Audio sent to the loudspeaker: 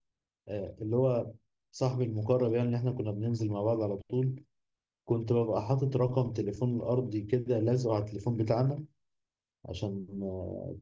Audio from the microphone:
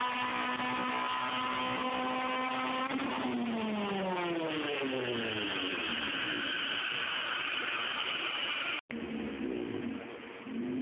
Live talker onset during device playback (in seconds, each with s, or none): none